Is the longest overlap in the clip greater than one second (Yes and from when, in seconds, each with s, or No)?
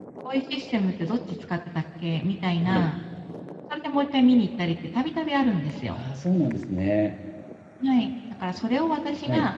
No